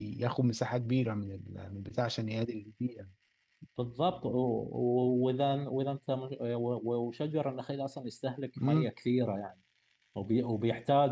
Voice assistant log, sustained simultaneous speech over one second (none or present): none